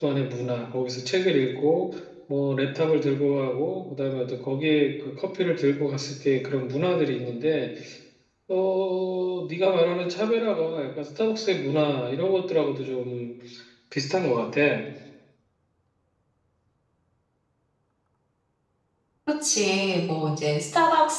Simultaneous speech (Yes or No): No